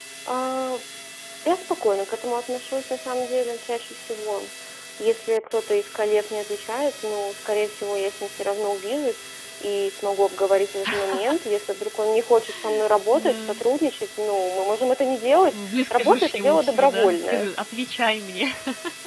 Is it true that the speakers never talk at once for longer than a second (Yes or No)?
No